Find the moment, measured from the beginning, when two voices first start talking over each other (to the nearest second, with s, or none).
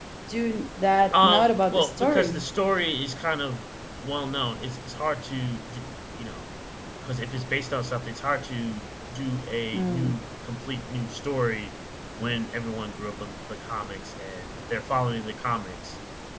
1 s